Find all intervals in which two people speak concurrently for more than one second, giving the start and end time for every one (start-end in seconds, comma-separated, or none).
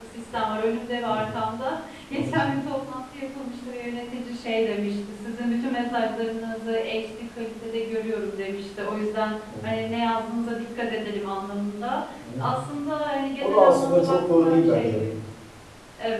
13.4-15.0